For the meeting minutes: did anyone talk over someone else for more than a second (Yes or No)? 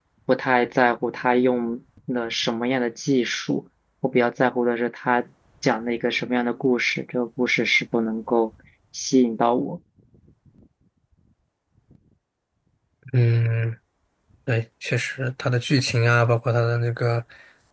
No